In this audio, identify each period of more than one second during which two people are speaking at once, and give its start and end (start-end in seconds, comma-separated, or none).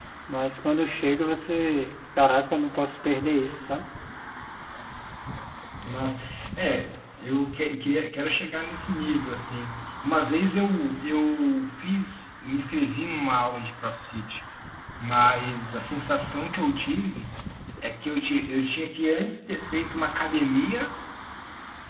none